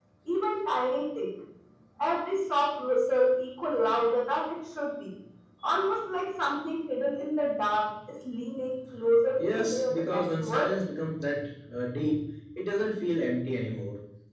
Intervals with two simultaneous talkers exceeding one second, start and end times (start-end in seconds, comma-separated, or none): 9.4-10.7